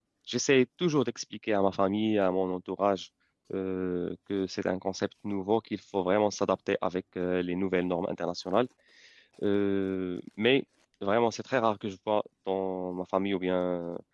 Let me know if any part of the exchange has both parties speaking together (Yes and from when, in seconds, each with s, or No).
No